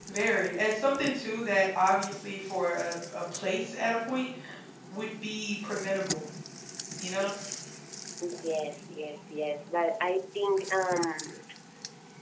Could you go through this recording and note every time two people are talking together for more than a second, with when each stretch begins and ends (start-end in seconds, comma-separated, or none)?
none